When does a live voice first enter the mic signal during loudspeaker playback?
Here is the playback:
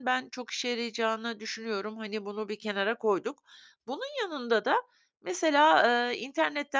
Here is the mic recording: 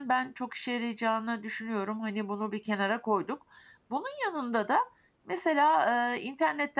none

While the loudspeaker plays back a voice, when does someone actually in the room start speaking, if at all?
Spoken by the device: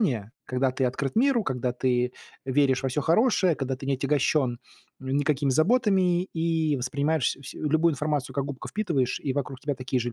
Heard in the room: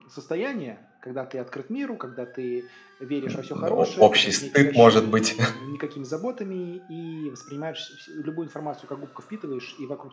3.2 s

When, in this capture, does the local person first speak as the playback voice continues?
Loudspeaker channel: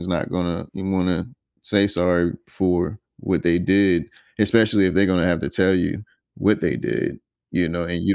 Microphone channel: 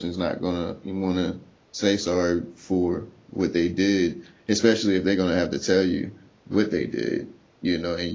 none

